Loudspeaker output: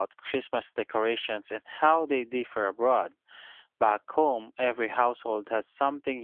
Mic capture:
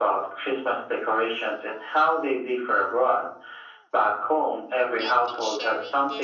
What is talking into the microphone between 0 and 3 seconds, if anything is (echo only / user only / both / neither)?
echo only